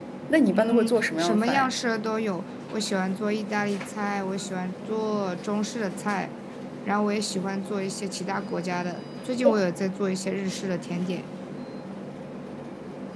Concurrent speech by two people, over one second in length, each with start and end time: 0.5-1.7

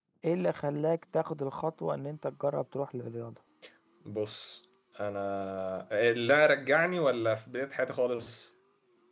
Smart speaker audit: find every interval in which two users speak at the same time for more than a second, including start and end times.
none

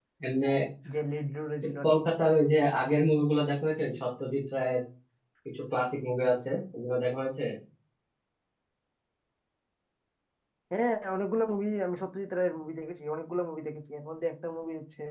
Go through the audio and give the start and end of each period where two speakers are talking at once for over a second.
none

